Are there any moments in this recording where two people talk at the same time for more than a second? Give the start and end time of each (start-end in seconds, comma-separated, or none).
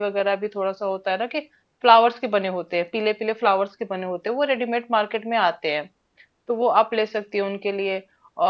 none